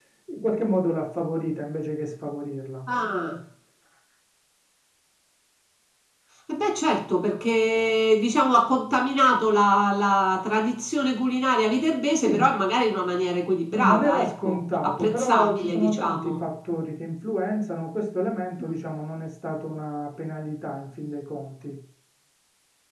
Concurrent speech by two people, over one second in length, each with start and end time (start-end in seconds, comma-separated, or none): 13.8-16.3